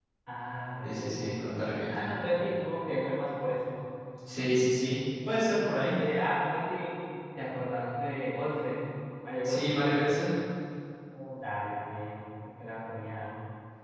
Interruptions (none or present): present